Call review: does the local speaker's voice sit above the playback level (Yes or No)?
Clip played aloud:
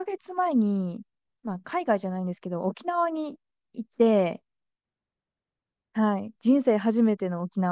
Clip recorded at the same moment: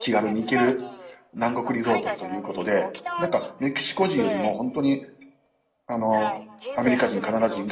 Yes